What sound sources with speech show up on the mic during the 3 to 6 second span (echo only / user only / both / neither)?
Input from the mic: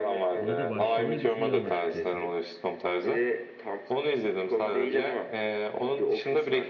echo only